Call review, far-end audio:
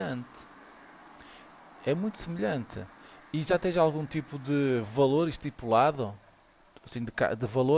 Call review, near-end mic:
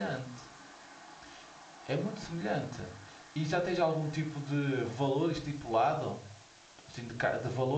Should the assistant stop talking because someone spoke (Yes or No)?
No